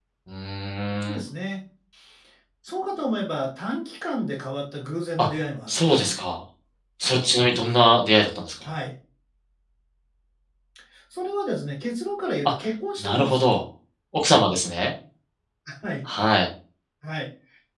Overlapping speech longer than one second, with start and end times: none

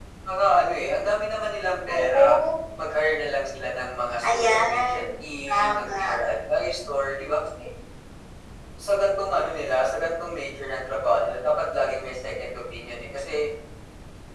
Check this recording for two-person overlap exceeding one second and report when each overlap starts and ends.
4.3-6.2

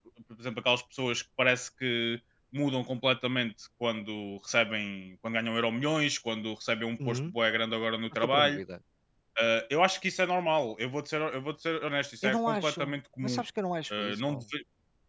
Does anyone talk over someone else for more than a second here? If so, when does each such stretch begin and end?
12.2-13.4

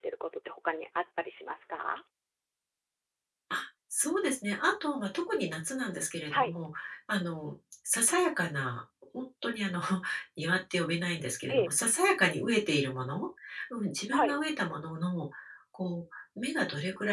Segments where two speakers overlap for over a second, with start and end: none

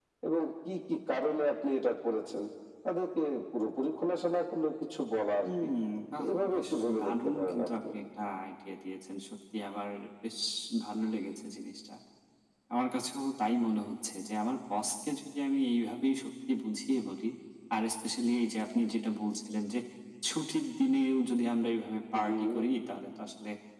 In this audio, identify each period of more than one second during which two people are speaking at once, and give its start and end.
6.3-7.7

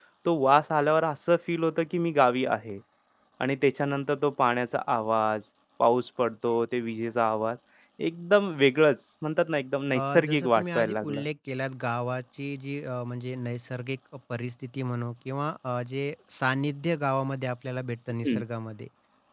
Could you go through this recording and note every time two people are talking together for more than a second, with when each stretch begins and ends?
9.9-11.2

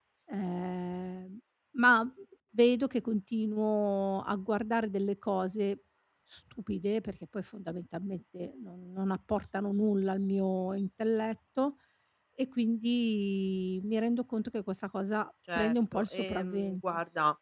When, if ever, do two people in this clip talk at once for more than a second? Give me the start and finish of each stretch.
15.6-16.8

